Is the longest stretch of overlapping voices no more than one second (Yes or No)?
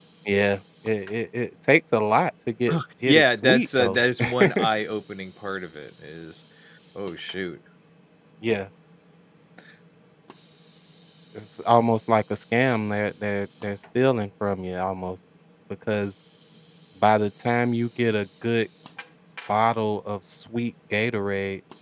No